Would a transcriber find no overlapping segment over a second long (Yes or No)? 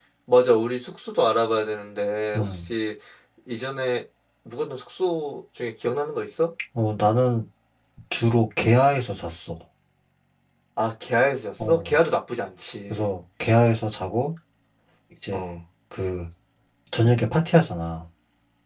Yes